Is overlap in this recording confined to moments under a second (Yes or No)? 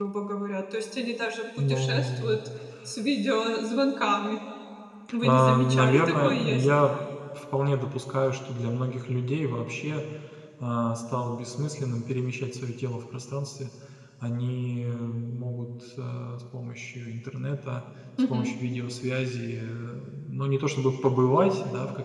No